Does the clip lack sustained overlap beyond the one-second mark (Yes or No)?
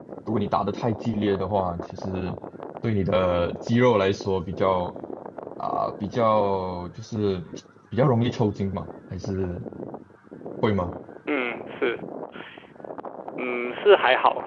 Yes